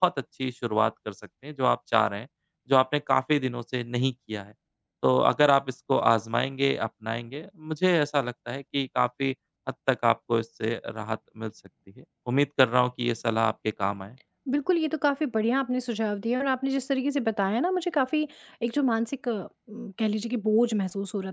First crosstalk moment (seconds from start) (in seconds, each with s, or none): none